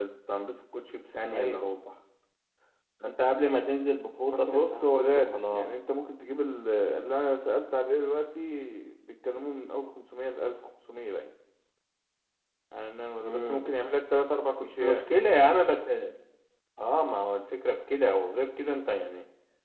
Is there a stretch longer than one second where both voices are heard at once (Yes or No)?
Yes